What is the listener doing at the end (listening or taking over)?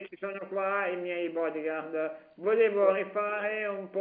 listening